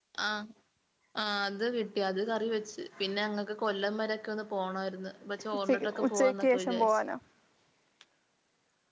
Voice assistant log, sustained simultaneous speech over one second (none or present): present